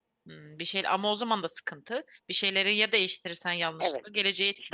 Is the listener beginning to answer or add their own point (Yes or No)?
Yes